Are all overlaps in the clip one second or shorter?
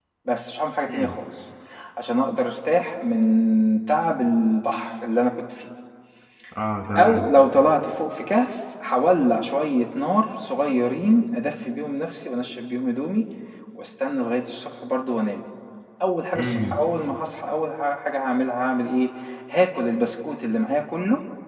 Yes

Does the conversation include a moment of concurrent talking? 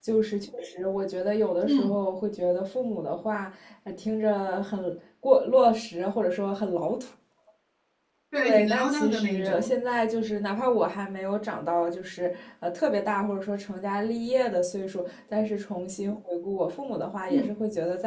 Yes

